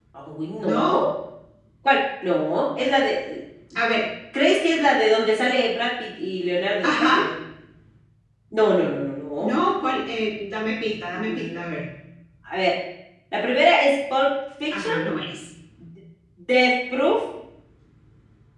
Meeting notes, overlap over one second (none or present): none